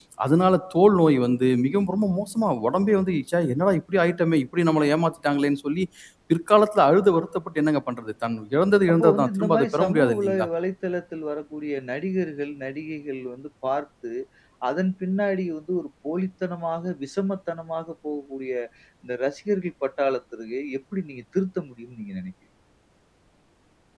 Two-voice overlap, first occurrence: 8.9 s

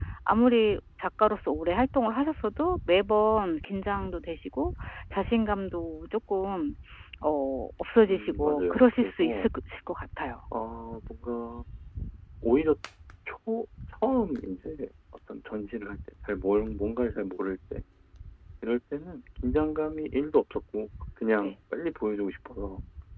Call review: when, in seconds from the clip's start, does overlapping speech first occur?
8.1 s

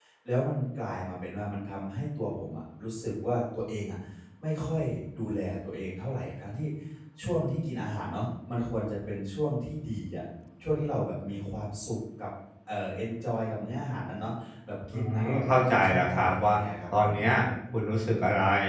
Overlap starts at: 14.9 s

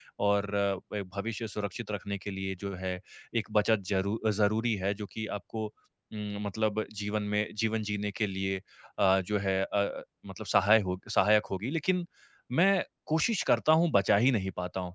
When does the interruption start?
none

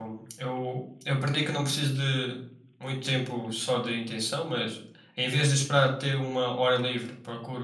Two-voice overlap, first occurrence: none

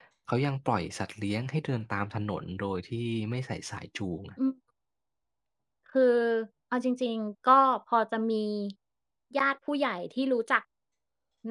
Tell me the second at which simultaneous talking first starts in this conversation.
none

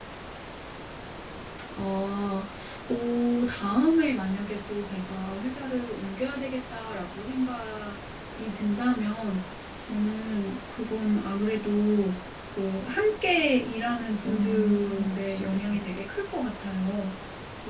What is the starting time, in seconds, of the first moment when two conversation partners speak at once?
14.2 s

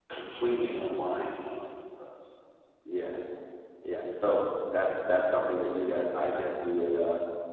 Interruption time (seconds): none

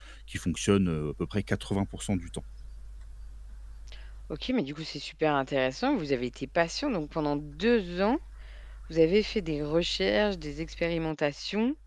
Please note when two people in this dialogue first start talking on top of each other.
none

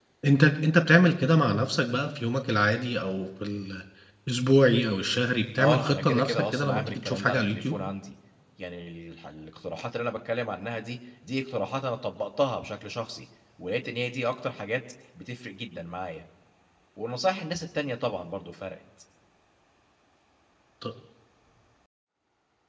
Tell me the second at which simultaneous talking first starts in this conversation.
5.6 s

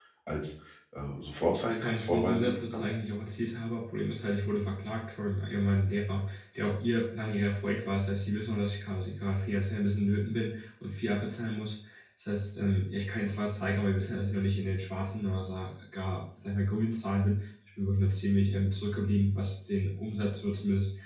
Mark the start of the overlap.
1.7 s

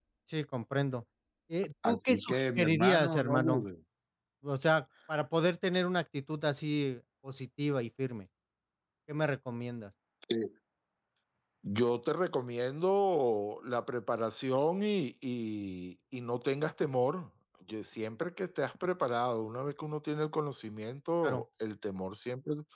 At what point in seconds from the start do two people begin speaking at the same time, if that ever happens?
1.8 s

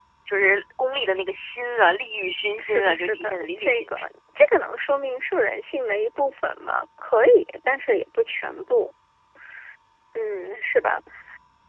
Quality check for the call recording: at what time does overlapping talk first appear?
2.6 s

